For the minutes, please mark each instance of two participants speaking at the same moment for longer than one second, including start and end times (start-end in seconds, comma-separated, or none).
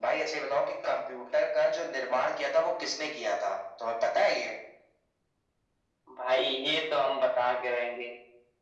none